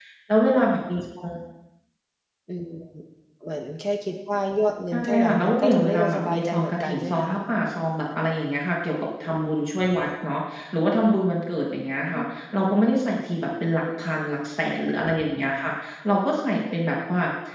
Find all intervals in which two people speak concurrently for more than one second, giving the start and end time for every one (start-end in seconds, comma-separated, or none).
4.9-7.3